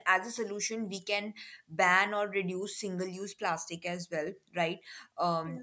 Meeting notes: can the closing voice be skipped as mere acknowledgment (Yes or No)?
Yes